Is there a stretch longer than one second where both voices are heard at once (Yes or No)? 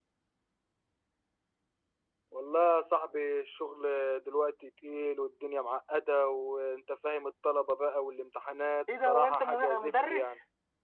Yes